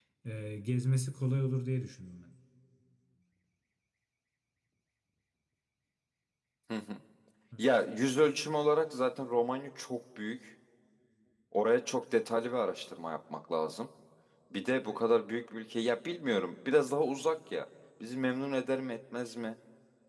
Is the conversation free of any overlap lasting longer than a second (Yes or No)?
Yes